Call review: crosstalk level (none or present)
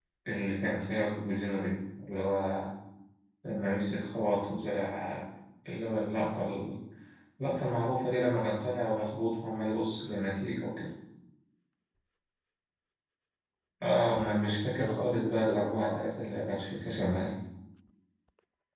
present